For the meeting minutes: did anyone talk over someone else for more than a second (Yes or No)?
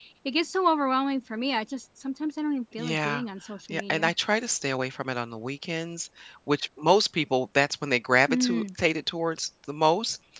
No